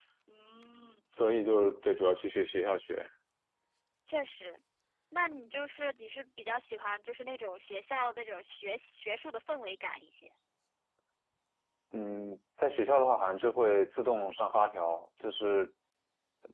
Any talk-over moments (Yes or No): No